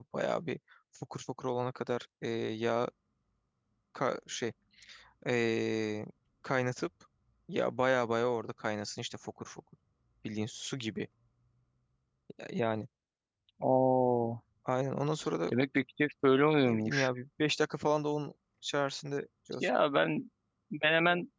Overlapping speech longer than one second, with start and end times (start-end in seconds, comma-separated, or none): none